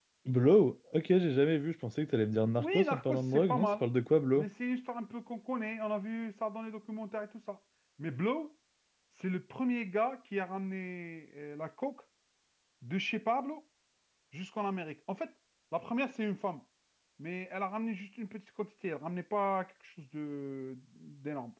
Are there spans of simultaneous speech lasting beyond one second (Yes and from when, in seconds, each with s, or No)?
Yes, from 2.4 s